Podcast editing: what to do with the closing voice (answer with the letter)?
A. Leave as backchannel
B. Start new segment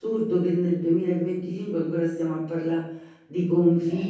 A